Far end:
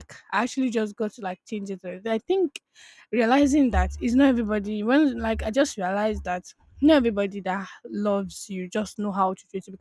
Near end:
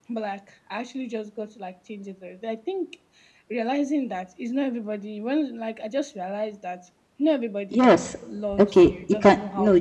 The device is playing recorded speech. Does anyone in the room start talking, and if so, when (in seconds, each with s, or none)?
7.7 s